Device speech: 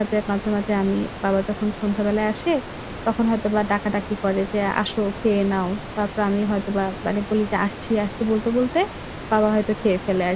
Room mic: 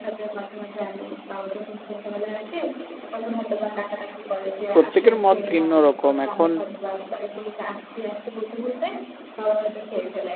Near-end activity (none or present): present